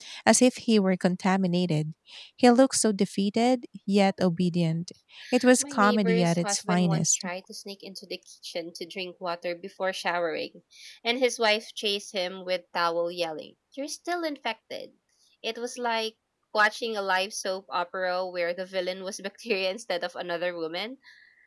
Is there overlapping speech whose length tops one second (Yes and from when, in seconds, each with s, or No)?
Yes, from 5.6 s